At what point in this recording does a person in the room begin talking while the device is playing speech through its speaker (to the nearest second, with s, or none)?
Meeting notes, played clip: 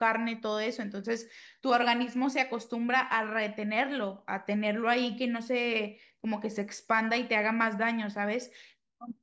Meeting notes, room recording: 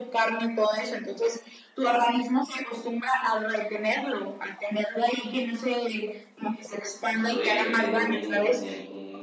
7 s